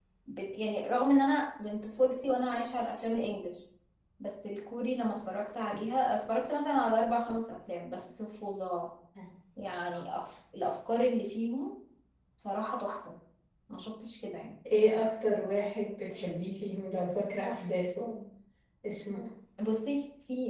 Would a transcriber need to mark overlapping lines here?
No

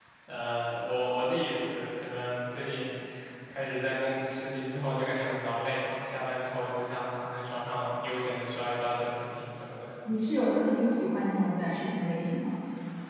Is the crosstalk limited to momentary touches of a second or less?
Yes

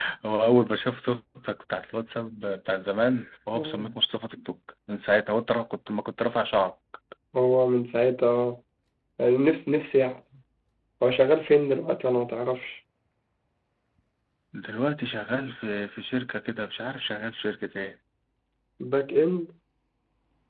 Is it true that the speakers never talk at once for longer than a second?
Yes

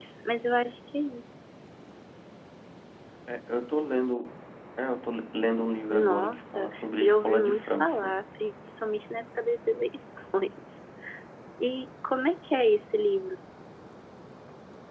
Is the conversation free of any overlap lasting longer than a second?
No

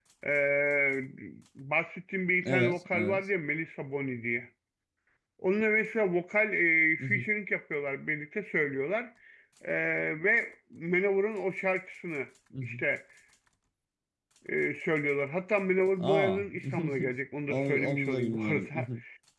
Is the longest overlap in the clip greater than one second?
Yes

